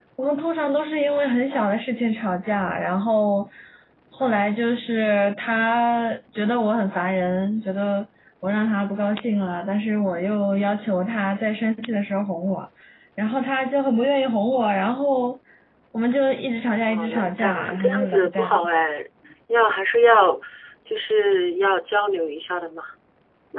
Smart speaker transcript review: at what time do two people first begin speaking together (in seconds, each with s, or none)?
16.9 s